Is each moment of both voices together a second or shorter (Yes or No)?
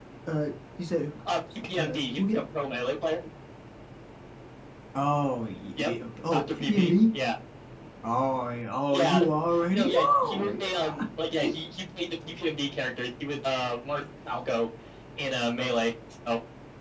No